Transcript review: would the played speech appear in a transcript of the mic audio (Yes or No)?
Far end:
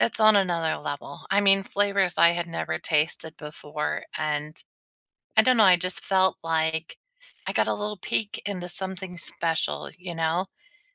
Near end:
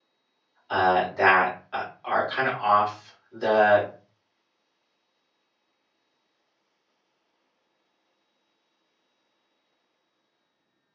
No